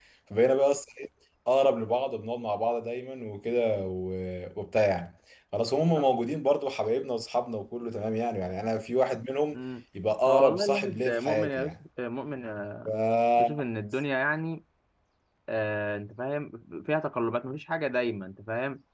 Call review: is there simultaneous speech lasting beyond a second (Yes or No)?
Yes